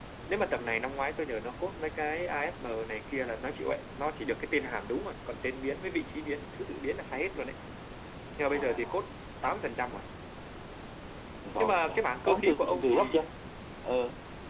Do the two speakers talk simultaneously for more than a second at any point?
Yes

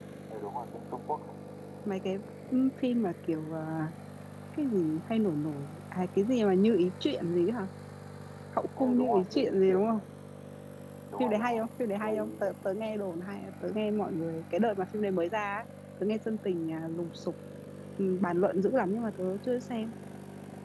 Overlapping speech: Yes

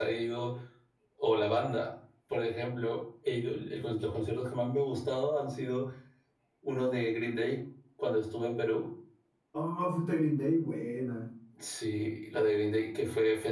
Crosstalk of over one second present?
No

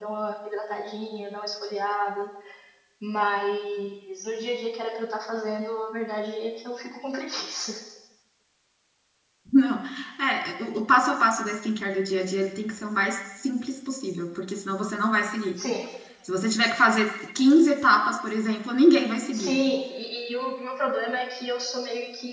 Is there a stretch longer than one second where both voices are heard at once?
No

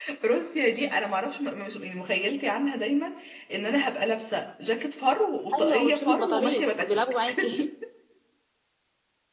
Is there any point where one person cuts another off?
Yes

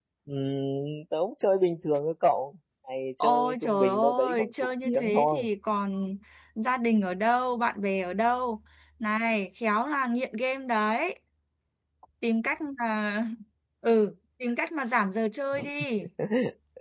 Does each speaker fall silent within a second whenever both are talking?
No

